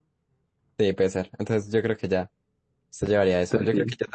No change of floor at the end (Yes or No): Yes